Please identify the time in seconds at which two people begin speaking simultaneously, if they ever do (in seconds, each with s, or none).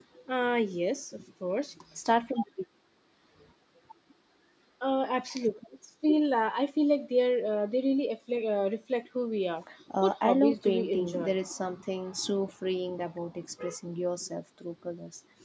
10.0 s